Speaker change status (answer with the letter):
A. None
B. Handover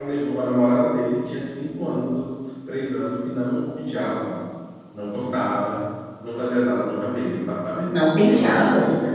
A